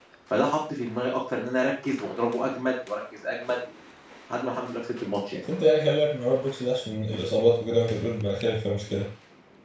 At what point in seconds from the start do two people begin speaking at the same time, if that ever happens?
none

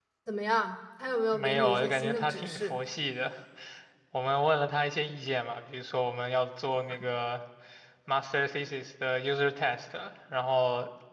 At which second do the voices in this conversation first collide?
1.3 s

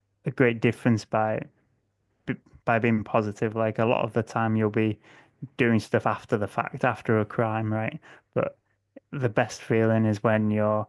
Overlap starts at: none

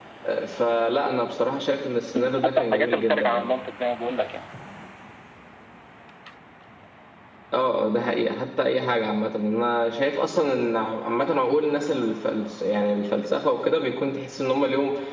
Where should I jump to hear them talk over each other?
2.2 s

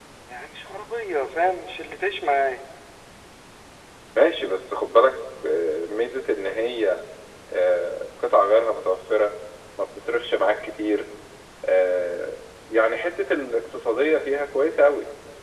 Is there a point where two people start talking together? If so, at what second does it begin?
none

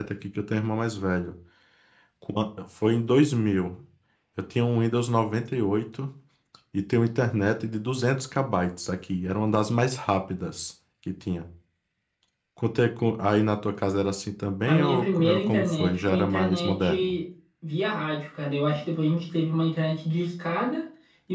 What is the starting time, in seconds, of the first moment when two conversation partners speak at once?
14.7 s

